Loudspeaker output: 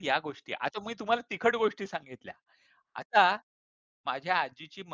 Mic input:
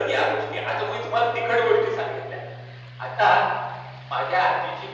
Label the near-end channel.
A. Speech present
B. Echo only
B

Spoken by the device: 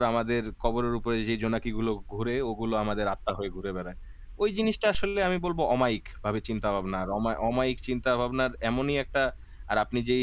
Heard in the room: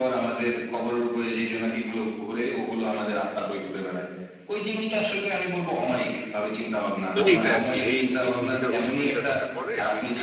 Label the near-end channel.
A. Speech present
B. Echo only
A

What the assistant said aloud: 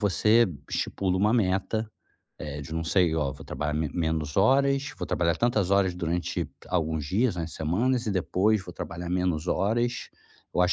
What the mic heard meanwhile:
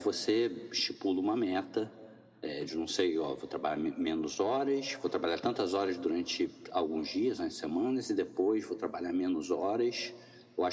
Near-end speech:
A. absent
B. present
A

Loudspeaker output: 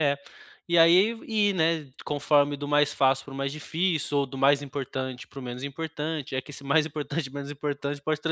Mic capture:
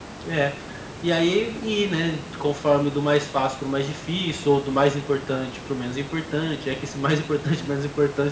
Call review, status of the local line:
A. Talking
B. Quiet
B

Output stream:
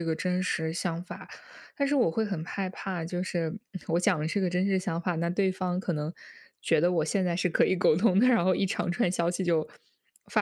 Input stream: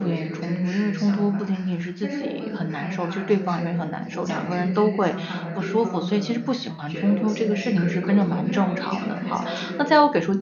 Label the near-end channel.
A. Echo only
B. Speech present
B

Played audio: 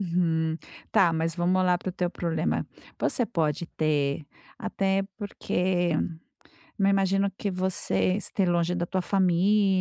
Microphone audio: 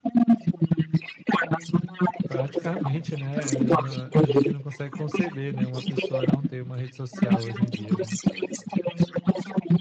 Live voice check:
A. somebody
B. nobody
A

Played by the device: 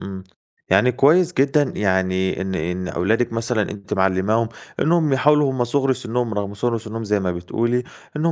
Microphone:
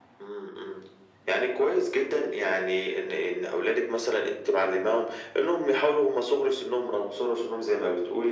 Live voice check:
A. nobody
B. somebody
A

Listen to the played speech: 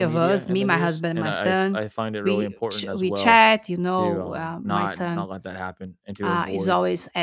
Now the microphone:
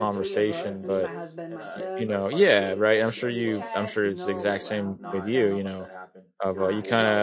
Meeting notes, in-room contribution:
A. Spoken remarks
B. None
A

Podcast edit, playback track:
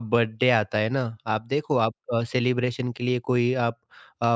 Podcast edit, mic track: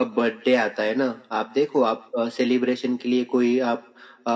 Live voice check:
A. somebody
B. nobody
B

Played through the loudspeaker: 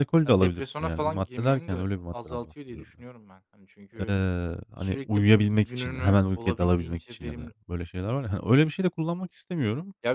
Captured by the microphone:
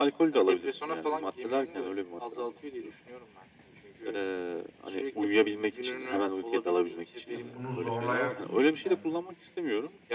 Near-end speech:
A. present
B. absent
A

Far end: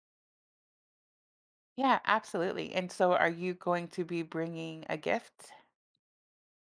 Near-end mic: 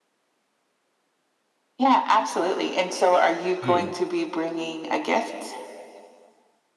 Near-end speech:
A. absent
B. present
B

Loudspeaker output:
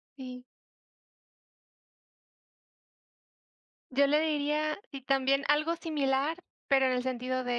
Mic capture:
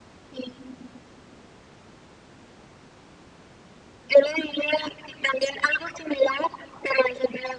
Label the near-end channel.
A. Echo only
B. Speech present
A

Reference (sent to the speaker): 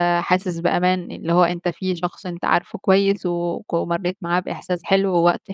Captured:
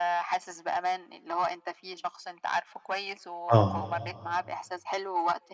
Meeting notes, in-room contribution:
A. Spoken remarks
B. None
A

